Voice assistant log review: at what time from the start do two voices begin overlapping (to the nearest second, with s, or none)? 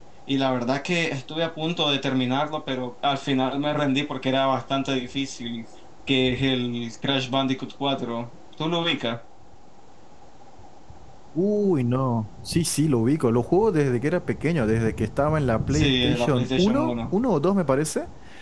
16 s